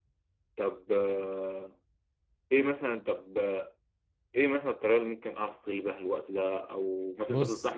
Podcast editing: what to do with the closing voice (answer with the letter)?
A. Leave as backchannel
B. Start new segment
A